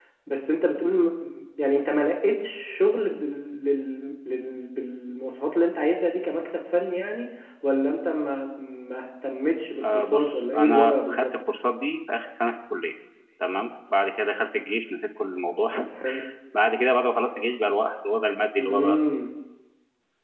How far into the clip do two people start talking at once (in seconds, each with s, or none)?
9.9 s